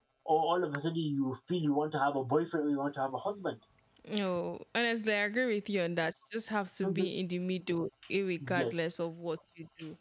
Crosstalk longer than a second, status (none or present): none